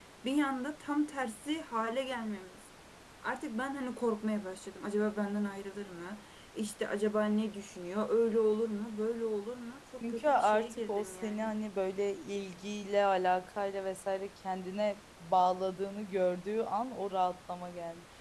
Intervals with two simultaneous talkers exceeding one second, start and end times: 10.1-11.5

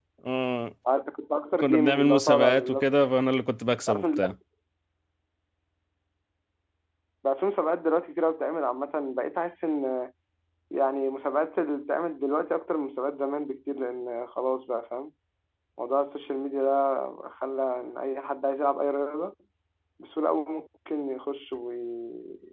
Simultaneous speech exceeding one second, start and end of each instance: 1.6-2.9

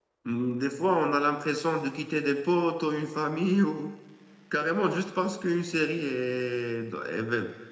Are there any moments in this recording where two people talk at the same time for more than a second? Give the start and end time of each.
none

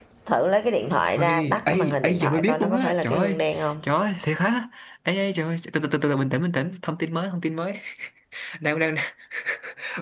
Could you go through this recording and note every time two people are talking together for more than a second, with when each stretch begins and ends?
1.1-3.4

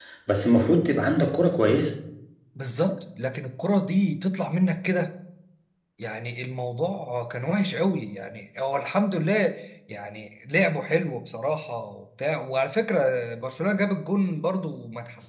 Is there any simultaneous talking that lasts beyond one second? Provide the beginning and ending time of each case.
none

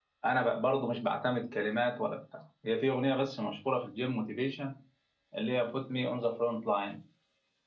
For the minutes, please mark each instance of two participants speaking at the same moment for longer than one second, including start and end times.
none

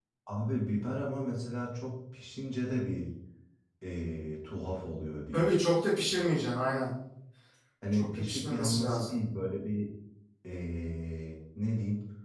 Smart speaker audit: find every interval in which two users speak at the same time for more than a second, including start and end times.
7.9-9.2

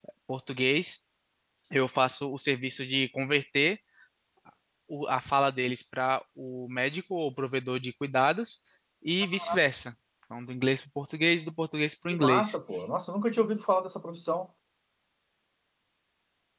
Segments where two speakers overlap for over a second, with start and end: none

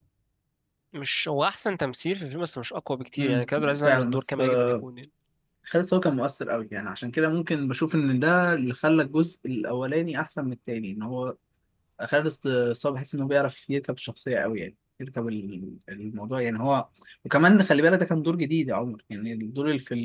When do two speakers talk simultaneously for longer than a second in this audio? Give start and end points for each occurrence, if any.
3.2-4.8

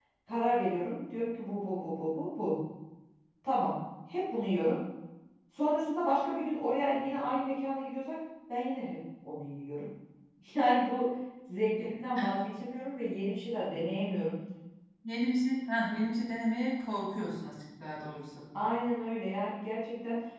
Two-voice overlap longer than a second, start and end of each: none

